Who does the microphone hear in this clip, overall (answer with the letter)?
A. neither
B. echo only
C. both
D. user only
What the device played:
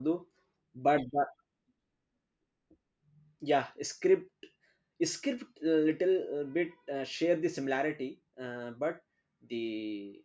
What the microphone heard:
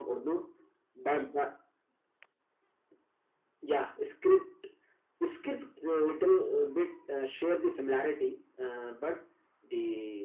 B